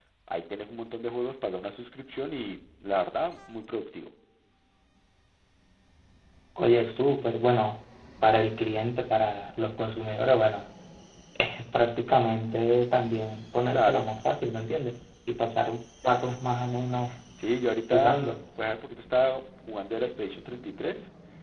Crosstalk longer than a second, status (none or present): none